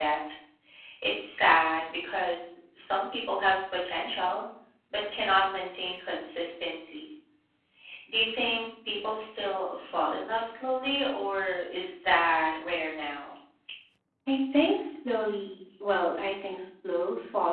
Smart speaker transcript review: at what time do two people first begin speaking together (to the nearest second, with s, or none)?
none